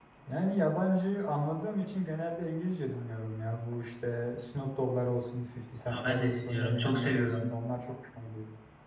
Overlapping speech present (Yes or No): Yes